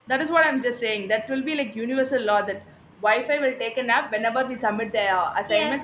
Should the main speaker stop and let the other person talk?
Yes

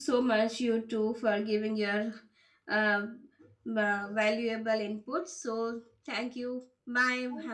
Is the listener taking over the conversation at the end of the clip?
Yes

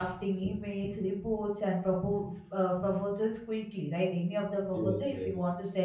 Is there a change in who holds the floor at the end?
No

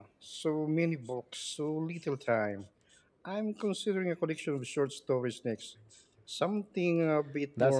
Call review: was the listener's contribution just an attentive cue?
No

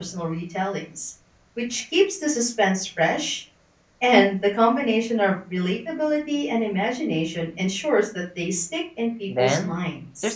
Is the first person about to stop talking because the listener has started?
Yes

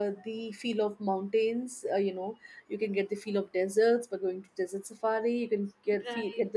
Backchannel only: Yes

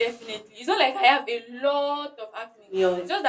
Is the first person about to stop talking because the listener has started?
Yes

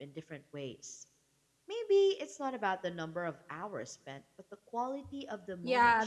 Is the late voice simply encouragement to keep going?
No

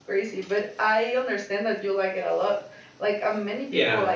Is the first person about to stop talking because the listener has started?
Yes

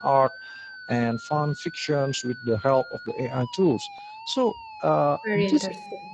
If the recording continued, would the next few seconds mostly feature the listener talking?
No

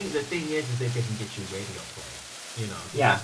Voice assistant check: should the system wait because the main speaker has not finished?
Yes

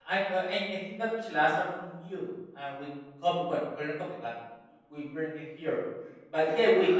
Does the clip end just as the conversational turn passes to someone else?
Yes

